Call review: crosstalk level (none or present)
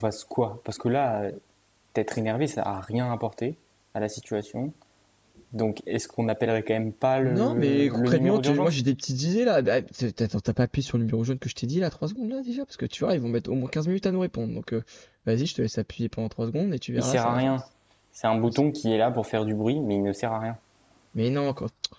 present